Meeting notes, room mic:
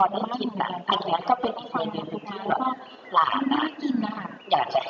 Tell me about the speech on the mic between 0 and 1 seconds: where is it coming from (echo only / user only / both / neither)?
echo only